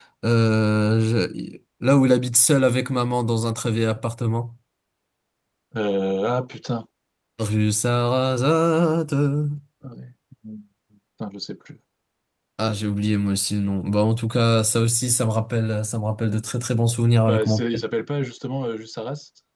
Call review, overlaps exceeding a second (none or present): none